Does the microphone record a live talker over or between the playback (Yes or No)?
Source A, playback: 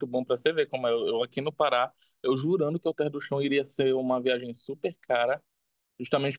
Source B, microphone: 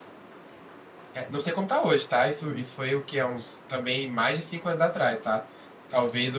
Yes